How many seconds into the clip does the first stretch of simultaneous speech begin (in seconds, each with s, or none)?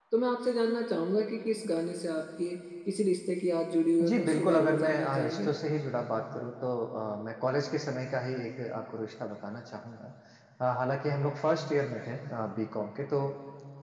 4.0 s